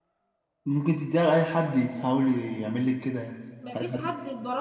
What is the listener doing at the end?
taking over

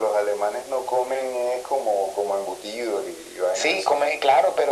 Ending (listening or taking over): taking over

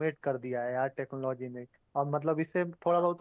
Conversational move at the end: listening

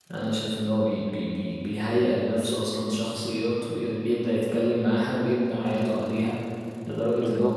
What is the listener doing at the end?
listening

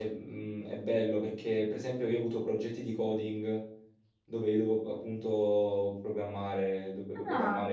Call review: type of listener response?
listening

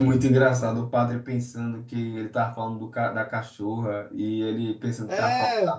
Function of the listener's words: listening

